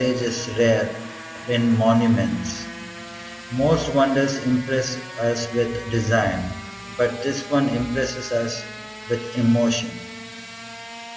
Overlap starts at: none

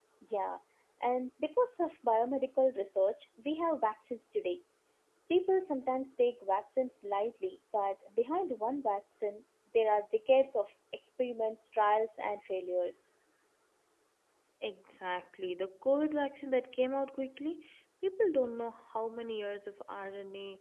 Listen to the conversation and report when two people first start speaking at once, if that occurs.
none

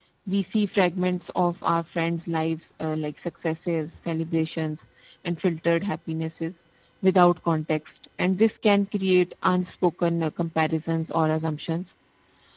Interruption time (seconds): none

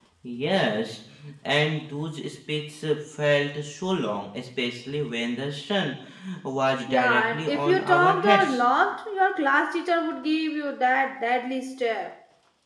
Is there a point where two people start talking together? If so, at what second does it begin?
6.9 s

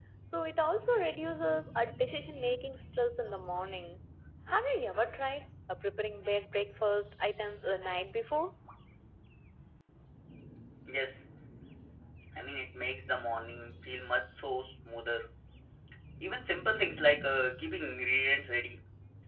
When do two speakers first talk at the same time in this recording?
none

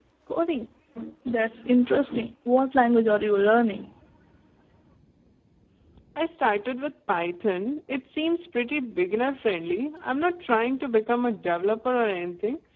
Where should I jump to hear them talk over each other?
none

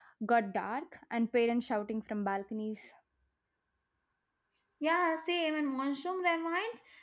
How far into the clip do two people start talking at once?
none

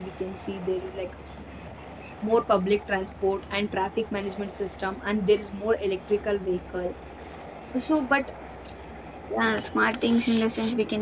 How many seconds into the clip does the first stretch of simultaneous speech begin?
none

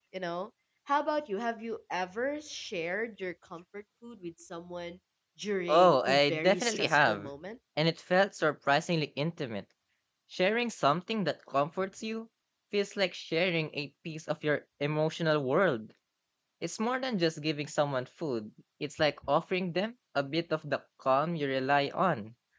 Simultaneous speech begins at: 5.7 s

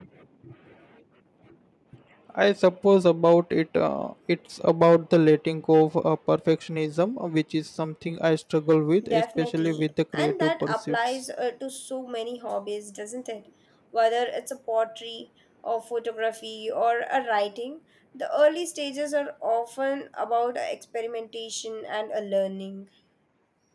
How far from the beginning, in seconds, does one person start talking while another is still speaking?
9.0 s

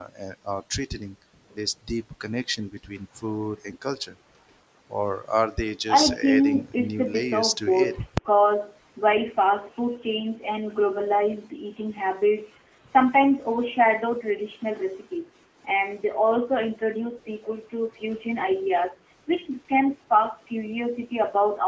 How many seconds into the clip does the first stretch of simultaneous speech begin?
5.9 s

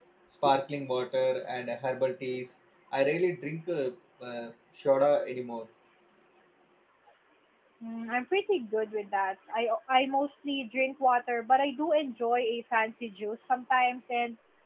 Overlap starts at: none

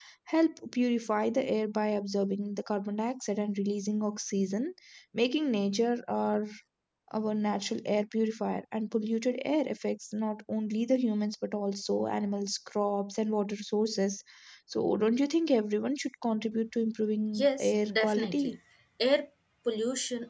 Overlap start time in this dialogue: 17.3 s

